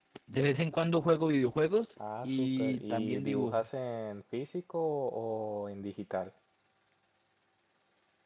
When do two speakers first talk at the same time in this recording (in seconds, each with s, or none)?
2.2 s